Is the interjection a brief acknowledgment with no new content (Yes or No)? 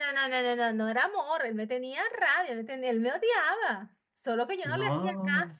Yes